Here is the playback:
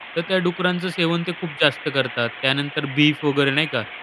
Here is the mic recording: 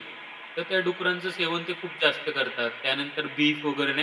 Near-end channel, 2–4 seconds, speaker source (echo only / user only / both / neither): echo only